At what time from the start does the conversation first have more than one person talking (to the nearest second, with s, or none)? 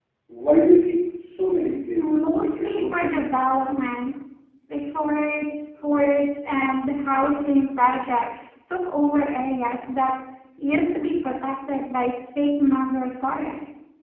2 s